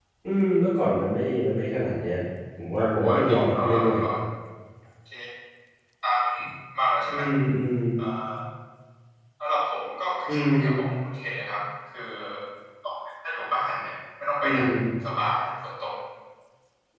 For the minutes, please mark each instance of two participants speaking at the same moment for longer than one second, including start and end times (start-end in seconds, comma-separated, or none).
2.8-4.0